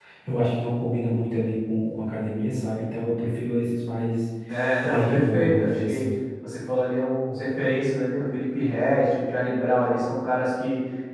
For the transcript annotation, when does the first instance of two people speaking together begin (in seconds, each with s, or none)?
4.8 s